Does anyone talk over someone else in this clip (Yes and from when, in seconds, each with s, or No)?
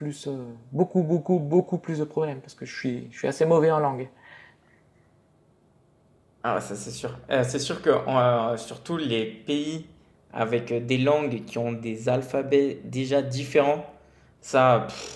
No